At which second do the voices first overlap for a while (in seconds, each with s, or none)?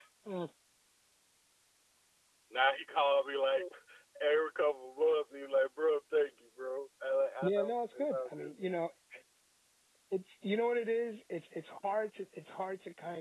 7.4 s